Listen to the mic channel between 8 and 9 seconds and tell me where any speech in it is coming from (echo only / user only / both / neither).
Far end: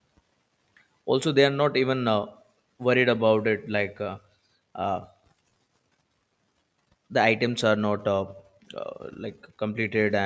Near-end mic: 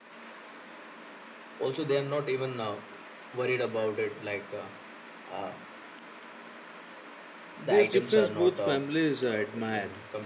both